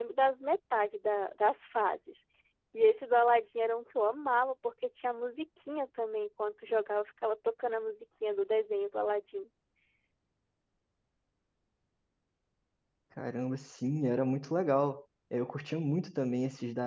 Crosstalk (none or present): none